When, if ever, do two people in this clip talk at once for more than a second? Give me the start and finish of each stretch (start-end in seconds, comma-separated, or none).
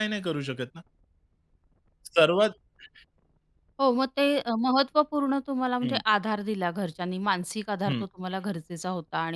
none